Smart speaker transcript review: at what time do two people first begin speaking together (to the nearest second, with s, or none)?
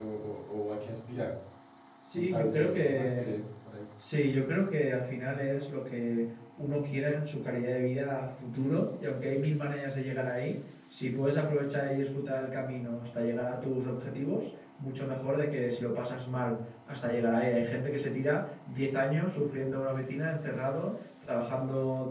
2 s